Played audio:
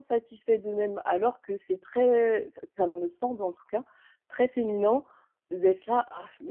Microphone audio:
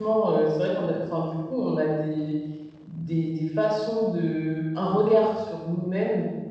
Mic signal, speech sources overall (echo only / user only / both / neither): user only